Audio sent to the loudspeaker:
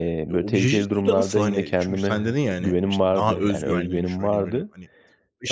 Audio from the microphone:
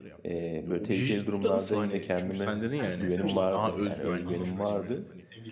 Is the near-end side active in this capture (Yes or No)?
Yes